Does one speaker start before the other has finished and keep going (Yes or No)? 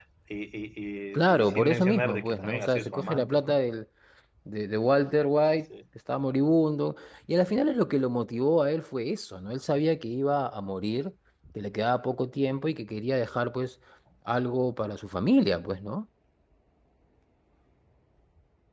Yes